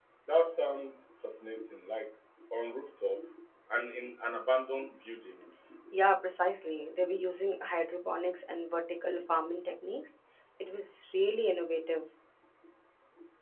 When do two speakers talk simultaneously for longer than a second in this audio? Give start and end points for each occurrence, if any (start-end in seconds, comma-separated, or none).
none